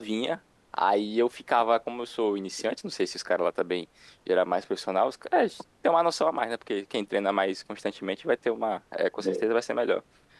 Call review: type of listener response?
listening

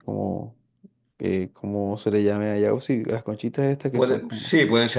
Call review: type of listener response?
taking over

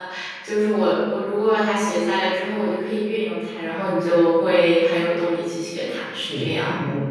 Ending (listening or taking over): taking over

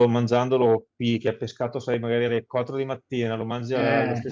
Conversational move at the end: listening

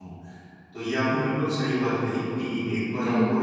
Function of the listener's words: listening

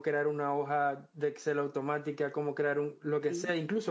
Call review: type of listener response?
listening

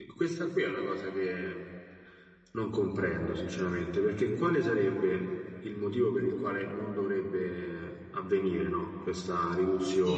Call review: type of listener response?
taking over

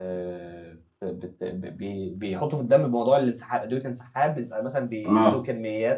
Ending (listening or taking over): listening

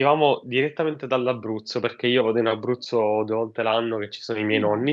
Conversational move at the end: listening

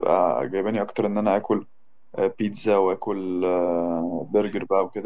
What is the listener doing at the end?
listening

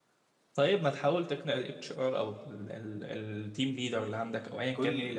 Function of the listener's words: taking over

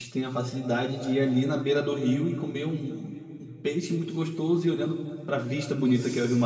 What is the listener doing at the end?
taking over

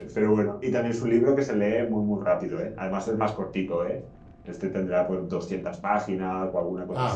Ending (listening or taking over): listening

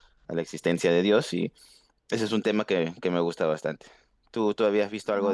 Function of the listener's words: taking over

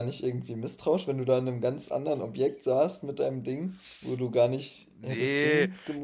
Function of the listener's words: taking over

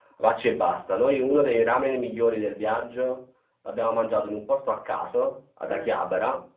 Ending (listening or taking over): listening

